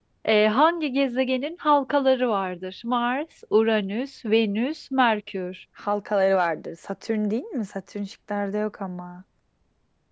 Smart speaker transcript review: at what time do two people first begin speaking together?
none

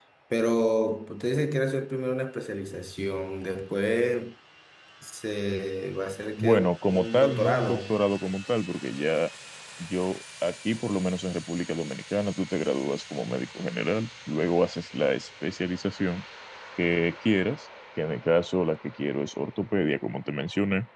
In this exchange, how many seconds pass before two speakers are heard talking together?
6.4 s

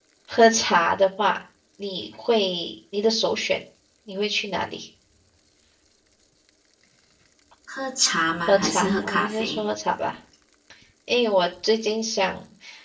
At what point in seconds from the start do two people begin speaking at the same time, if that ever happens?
8.5 s

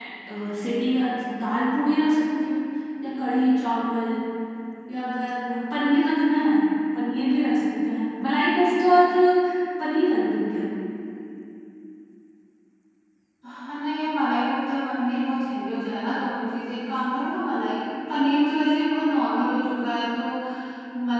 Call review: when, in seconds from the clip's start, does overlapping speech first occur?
none

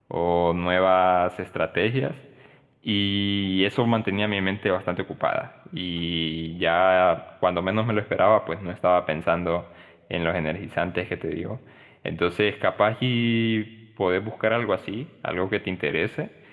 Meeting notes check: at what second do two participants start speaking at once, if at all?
none

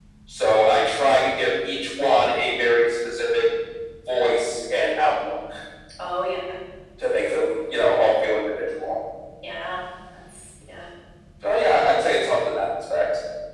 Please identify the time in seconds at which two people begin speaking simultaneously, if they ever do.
none

